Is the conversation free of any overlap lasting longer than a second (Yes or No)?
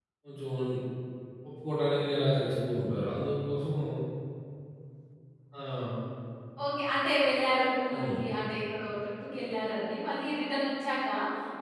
Yes